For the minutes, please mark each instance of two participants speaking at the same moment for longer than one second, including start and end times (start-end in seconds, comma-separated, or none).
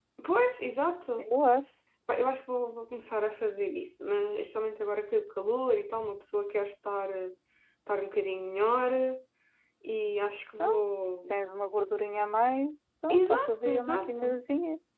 13.1-14.4